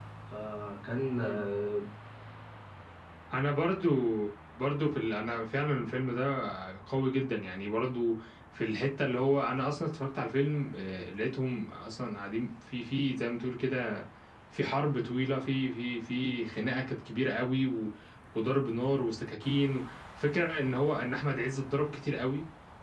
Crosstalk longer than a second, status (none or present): none